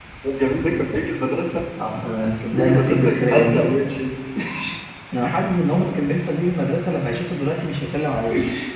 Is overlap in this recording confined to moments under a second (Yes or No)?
No